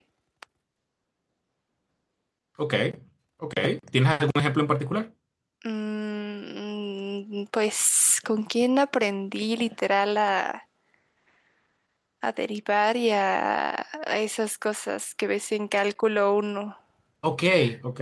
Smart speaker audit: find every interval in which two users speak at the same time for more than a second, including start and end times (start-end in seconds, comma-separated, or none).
none